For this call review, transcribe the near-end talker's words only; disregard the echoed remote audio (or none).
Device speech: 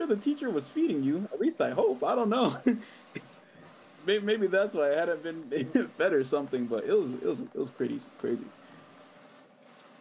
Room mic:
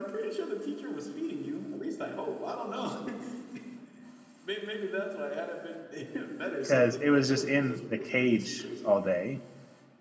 because it was just in the cage all day.